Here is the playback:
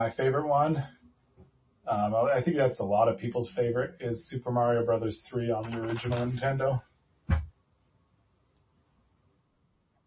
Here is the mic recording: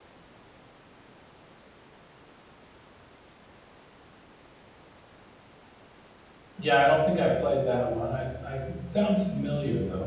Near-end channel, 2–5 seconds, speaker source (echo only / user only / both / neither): neither